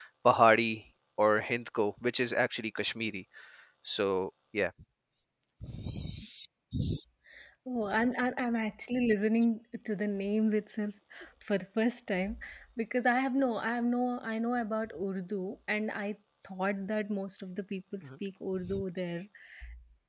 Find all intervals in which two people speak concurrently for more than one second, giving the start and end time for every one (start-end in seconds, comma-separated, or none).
none